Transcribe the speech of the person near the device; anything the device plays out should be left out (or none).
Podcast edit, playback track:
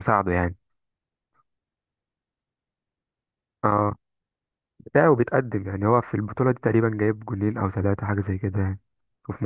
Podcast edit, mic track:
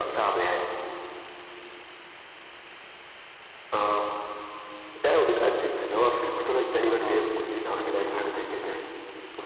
نفسي بصراحة حاجة زي لوكمان مثلا